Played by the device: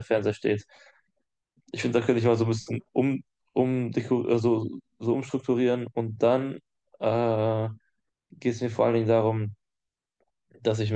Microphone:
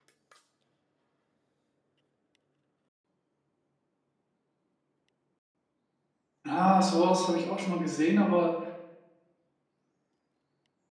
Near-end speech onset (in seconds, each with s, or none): 6.4 s